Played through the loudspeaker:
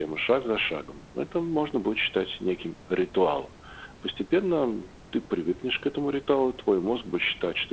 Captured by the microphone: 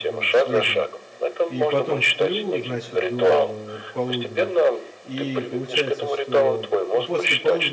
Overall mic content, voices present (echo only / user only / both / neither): both